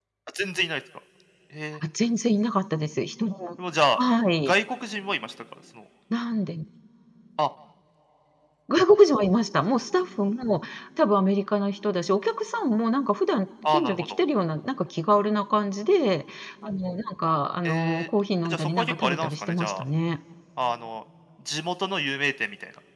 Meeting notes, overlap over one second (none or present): present